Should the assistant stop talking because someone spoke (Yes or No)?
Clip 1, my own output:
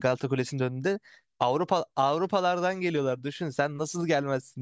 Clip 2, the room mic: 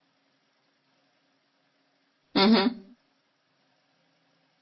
Yes